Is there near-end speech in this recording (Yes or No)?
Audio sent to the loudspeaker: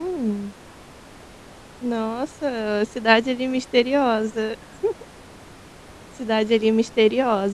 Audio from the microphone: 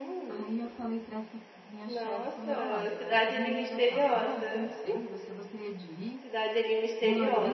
Yes